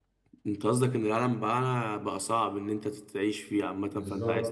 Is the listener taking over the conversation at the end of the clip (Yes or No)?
Yes